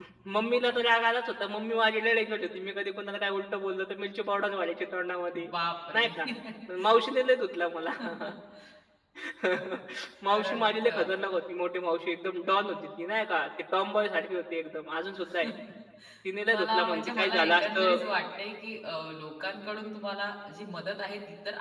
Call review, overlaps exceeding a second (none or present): present